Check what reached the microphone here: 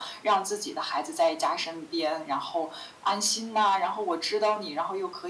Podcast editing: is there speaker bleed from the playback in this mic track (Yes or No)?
Yes